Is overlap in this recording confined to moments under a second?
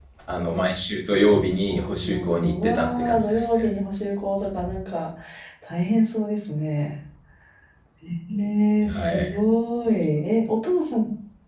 No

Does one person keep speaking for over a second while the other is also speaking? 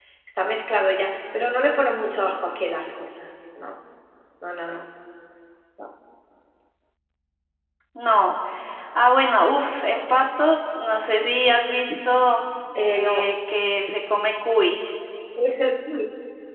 No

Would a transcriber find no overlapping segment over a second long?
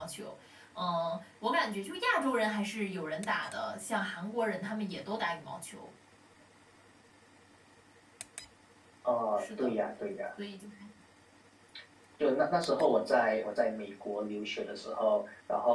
Yes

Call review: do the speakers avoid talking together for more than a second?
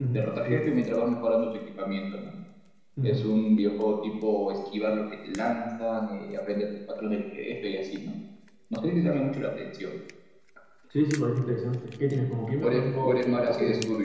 No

